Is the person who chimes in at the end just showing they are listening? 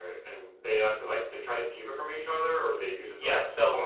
No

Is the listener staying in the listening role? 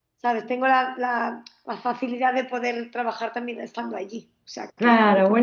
No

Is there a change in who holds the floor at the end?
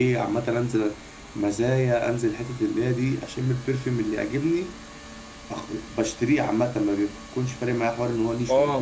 Yes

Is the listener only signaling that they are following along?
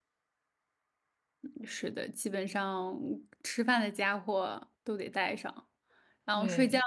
Yes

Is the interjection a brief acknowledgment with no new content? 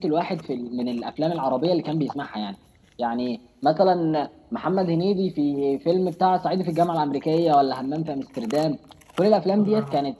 Yes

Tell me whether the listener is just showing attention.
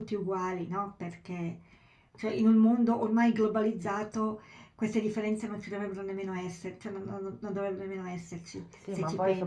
No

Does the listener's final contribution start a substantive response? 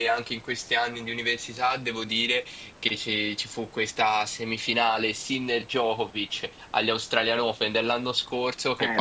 No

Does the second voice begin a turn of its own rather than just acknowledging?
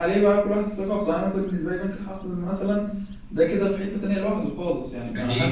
Yes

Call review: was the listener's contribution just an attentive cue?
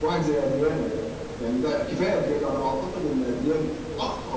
Yes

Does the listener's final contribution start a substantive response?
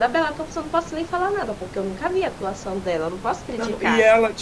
Yes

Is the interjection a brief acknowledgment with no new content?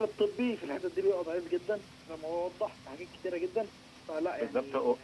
No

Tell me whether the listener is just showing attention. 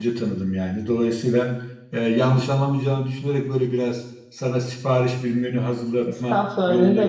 No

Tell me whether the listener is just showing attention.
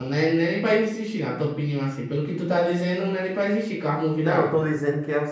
No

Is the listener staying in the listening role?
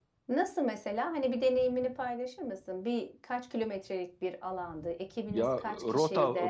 No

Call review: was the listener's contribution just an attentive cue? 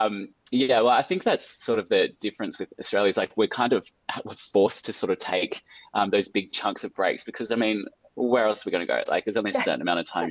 Yes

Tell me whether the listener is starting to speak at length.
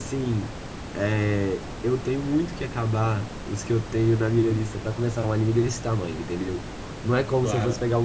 No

